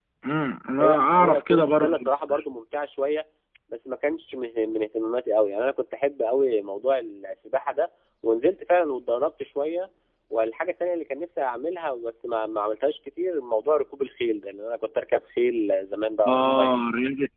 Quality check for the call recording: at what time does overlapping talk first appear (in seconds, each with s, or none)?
0.8 s